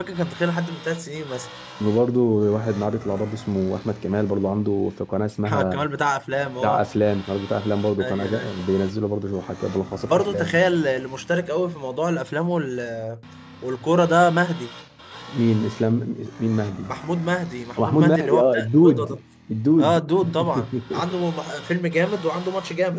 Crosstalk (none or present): present